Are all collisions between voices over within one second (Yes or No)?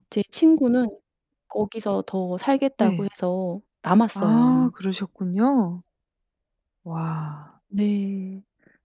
Yes